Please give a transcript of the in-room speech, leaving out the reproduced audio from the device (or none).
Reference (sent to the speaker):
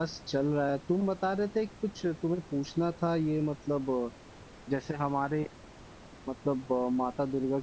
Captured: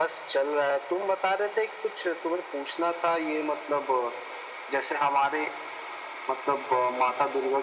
none